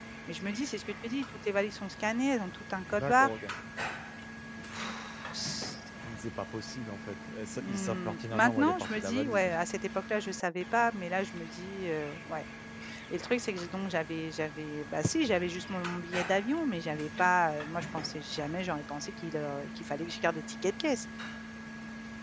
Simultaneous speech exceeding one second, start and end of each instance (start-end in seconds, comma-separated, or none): 7.5-9.5